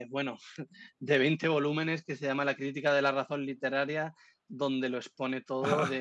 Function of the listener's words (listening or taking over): taking over